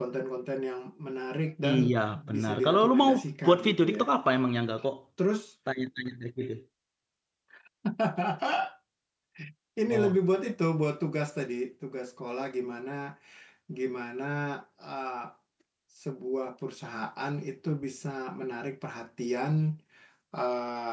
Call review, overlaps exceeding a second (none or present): present